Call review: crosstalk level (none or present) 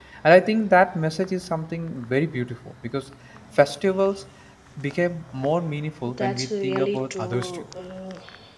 present